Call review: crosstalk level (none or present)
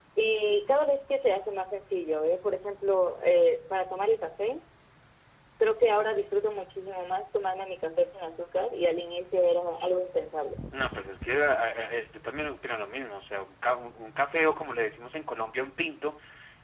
none